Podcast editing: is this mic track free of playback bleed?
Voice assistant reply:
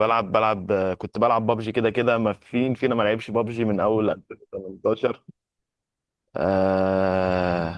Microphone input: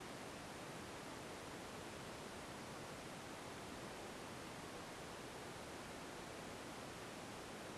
Yes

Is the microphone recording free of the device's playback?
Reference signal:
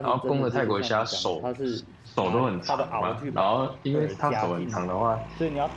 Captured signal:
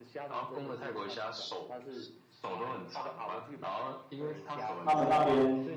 No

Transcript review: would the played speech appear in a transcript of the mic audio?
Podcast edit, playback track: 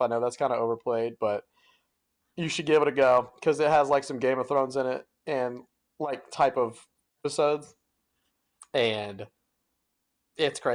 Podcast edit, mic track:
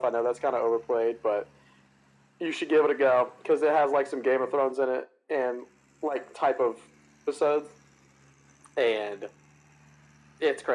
Yes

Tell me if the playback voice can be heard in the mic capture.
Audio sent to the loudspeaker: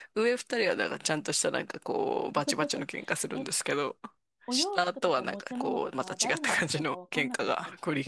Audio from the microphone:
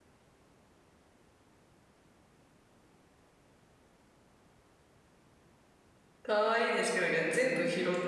No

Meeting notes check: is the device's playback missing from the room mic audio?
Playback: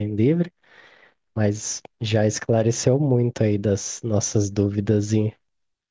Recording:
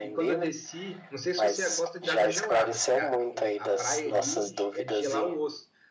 No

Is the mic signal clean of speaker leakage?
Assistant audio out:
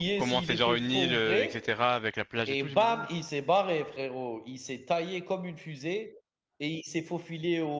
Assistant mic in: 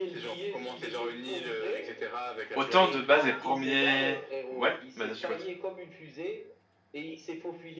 No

